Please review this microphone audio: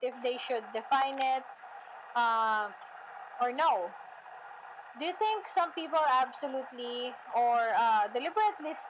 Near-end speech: none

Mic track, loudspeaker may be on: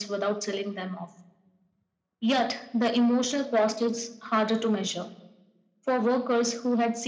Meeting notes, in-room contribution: none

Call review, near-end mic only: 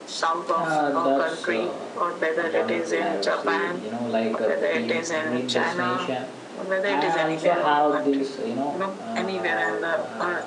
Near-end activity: present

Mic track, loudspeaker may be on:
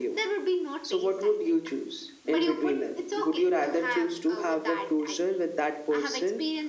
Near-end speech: none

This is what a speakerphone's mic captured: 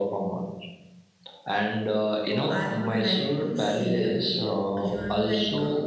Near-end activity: present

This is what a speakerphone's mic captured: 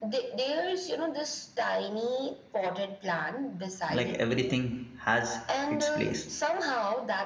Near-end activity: present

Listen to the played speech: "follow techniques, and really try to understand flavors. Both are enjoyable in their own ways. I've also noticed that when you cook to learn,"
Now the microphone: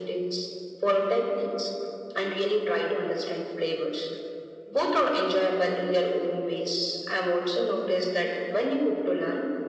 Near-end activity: none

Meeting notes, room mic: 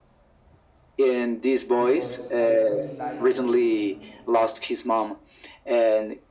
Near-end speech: present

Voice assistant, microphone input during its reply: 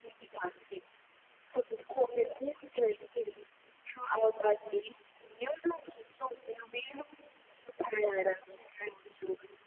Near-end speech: none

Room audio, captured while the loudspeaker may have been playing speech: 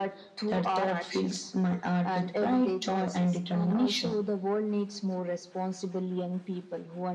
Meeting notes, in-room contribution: none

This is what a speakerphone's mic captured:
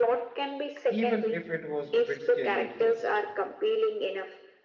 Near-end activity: present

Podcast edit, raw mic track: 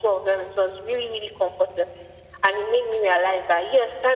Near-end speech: none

